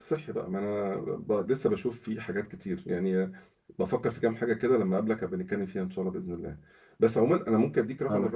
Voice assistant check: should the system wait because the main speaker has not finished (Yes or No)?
Yes